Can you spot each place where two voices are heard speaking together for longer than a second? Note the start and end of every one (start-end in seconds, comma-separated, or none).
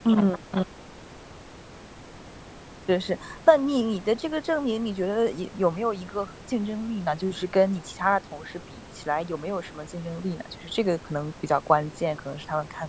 none